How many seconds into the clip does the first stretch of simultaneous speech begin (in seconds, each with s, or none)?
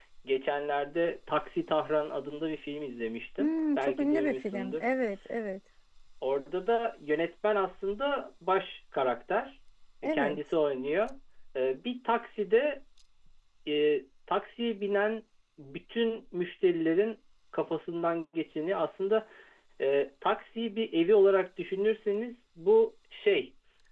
3.4 s